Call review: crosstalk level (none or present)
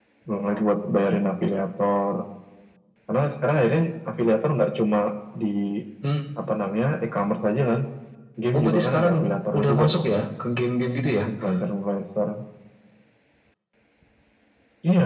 present